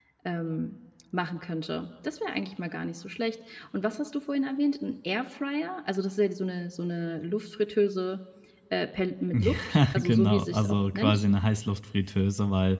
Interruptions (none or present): present